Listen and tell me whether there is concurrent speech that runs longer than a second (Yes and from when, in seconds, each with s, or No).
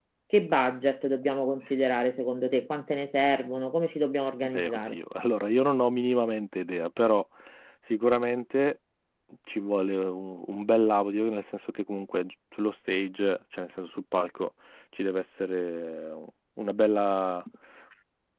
No